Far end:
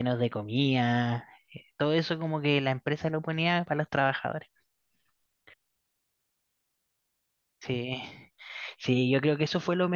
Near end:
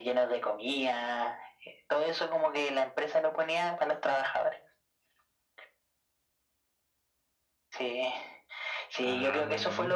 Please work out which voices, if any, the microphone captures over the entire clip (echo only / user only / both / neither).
both